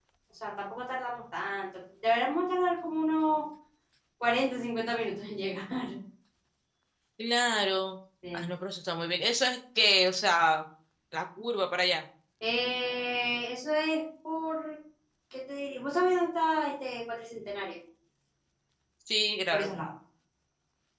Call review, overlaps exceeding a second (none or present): none